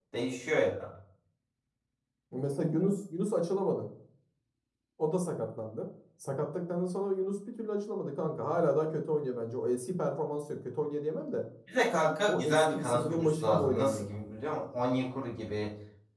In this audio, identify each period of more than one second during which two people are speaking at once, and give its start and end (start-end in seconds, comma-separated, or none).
12.3-14.1